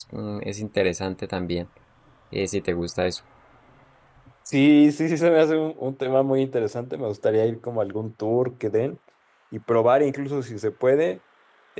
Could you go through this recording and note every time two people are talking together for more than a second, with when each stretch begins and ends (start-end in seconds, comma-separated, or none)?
none